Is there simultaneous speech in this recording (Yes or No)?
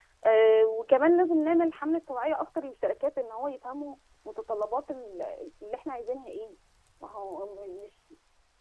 No